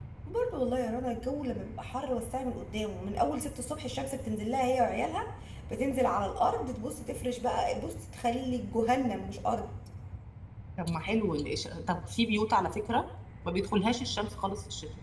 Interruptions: none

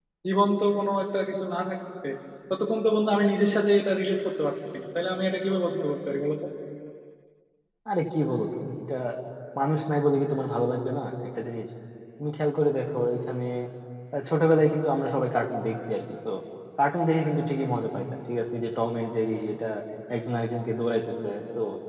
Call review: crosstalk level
none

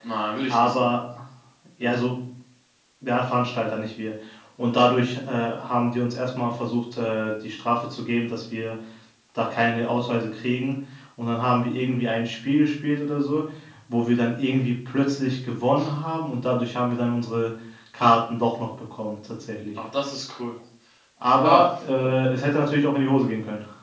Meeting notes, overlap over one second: none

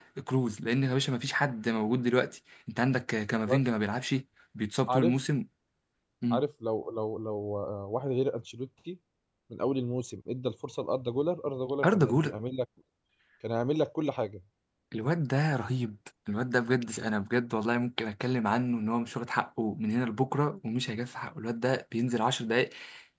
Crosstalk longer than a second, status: none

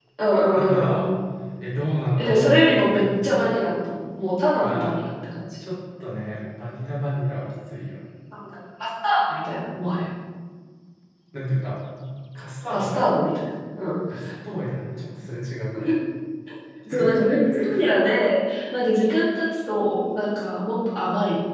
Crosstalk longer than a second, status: present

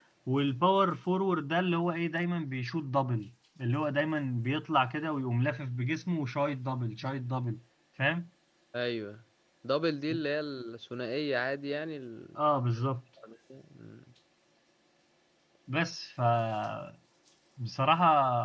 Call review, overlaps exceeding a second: none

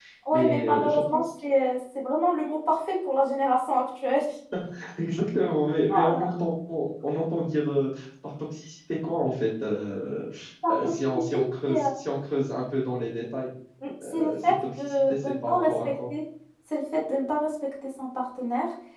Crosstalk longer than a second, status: present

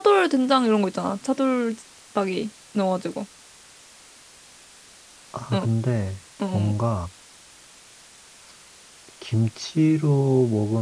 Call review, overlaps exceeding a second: none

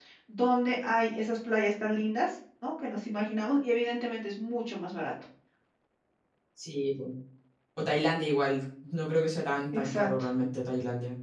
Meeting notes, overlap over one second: none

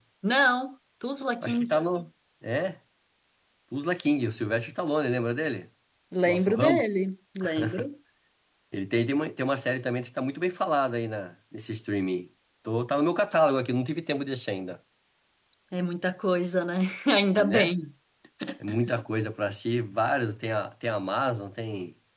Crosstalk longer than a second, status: none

